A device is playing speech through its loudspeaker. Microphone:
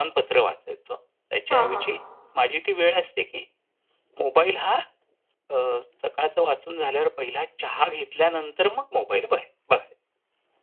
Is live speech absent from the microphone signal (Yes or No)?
No